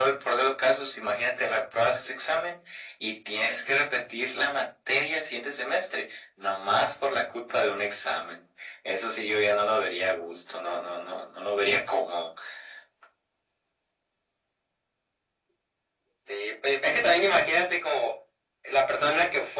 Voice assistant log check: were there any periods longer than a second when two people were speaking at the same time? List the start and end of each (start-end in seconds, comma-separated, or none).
none